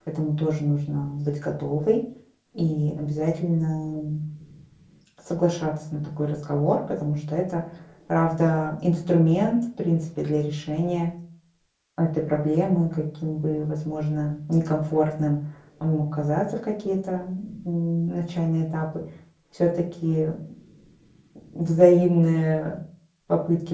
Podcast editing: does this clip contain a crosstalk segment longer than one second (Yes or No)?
No